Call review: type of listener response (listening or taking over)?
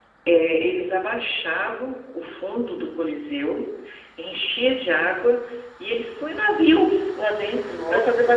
listening